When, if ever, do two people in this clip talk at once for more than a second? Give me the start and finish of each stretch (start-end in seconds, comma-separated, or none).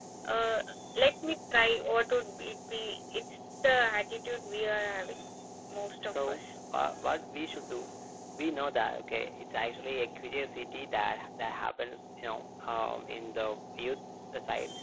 none